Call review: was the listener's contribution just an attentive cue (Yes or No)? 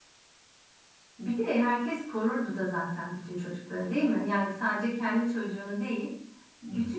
Yes